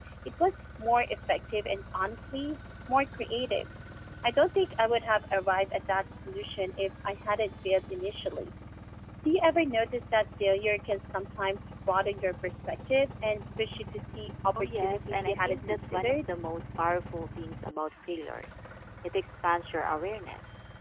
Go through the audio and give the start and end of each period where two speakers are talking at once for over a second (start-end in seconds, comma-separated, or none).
14.6-16.2